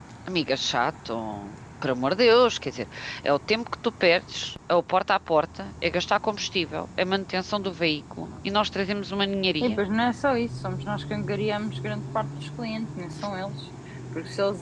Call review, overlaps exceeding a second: none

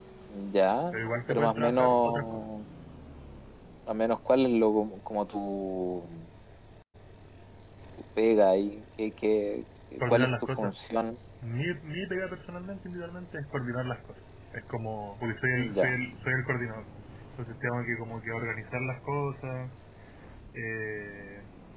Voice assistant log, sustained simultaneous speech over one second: present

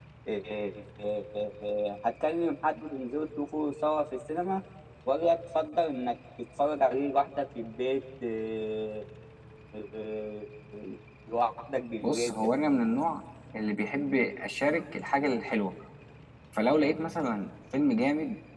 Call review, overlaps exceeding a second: none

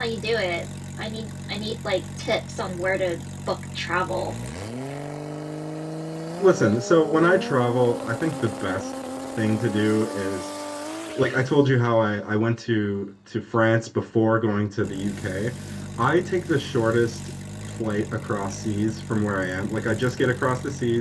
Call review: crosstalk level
none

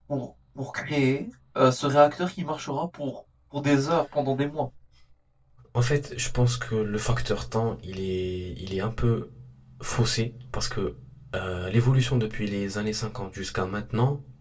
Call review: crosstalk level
none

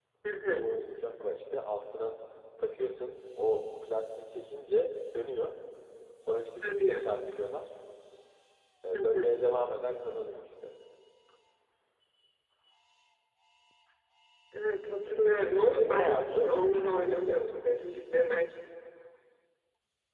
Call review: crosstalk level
present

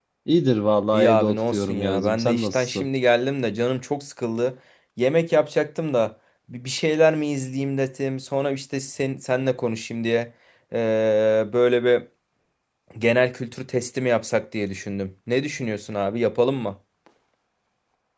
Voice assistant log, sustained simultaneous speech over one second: present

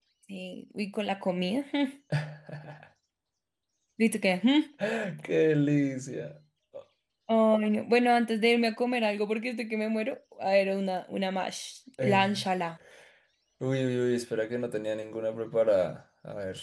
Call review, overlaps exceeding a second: none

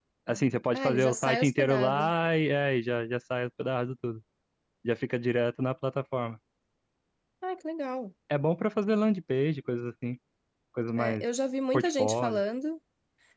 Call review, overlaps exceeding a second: present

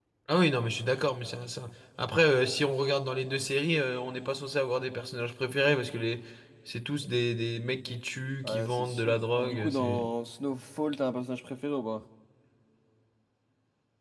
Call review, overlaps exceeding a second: present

